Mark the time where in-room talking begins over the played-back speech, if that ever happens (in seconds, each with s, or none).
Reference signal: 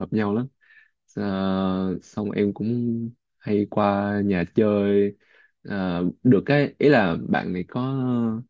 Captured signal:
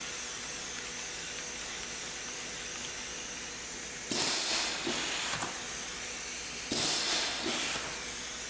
none